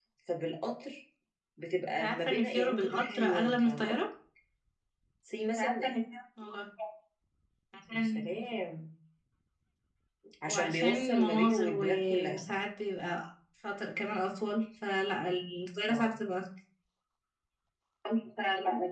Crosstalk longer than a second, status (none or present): present